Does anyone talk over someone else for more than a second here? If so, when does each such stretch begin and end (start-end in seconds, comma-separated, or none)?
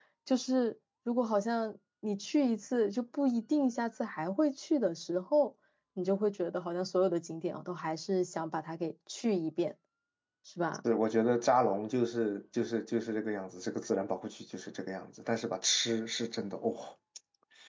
none